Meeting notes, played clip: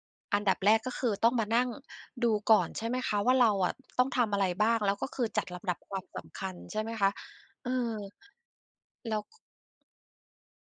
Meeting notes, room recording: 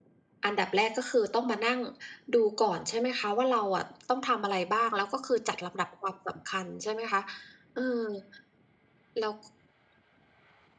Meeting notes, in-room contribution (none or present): none